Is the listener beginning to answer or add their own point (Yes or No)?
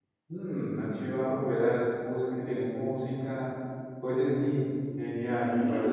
Yes